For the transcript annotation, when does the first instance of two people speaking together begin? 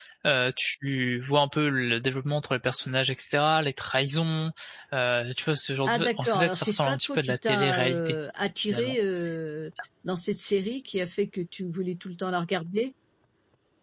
5.8 s

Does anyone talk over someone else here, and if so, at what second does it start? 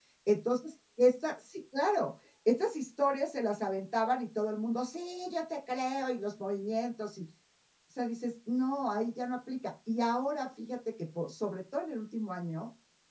none

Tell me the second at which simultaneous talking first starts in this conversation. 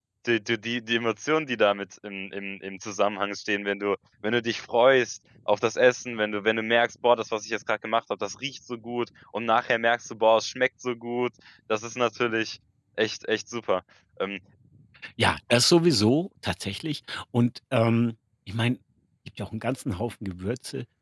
none

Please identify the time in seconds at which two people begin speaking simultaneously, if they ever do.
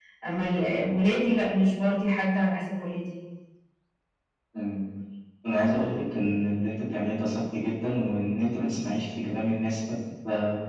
none

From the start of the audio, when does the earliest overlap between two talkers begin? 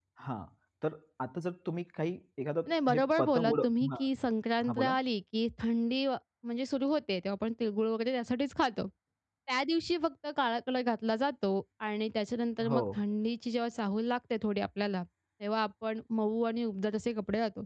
2.7 s

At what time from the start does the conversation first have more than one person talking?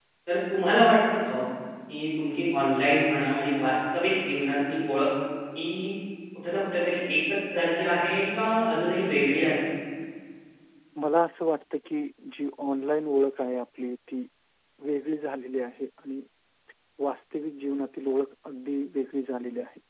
none

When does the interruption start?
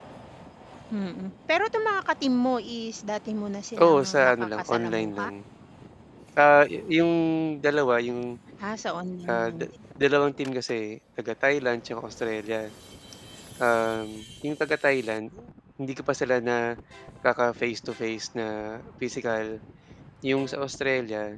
3.8 s

